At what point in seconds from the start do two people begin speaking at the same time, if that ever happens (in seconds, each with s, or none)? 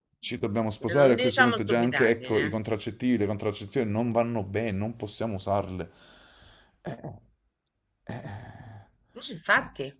0.8 s